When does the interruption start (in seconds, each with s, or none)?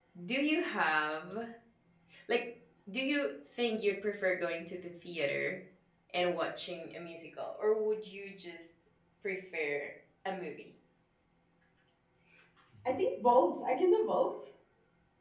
none